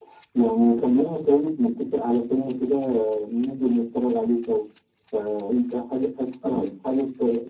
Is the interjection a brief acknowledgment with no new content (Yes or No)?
Yes